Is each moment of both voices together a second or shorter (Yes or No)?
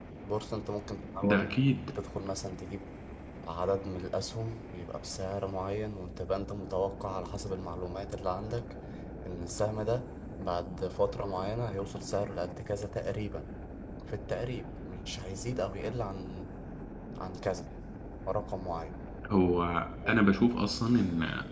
Yes